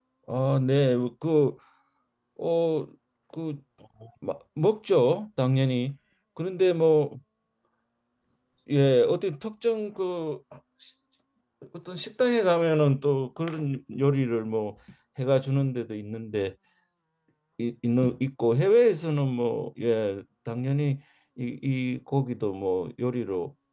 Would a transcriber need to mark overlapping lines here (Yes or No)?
No